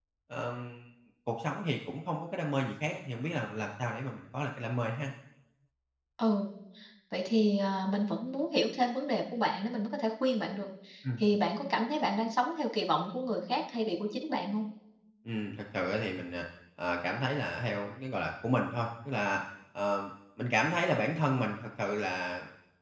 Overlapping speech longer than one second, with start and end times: none

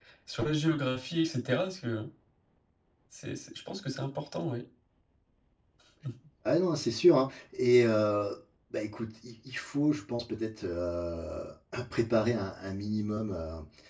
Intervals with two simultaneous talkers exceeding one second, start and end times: none

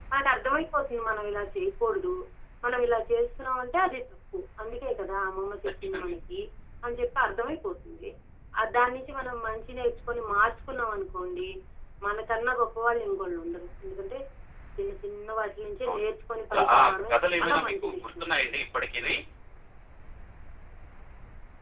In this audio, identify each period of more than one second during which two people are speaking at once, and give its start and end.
16.5-18.3

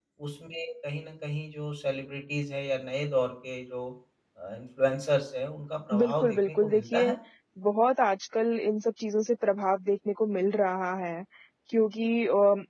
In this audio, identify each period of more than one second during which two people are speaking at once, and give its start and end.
5.9-7.2

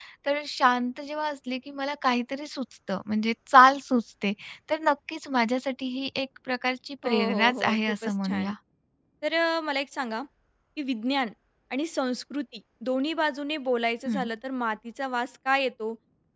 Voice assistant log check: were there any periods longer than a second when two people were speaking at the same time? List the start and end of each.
7.0-8.5

